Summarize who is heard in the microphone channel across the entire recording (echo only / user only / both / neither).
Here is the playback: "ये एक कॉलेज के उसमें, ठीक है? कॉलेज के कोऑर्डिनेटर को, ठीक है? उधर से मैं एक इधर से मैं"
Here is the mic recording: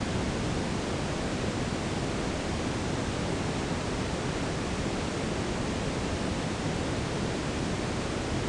neither